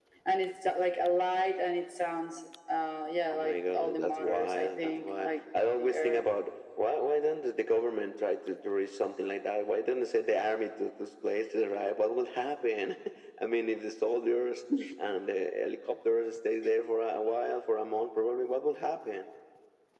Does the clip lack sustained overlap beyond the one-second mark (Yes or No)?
No